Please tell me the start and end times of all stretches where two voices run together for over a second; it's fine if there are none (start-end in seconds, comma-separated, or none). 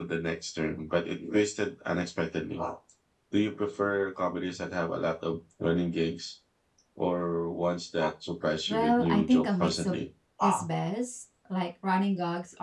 8.7-10.0